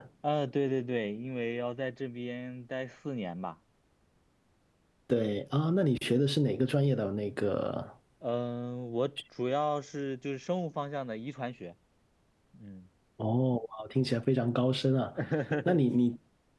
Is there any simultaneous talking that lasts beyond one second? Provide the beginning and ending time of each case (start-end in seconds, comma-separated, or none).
none